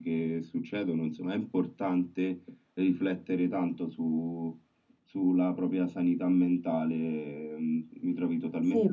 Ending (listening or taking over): taking over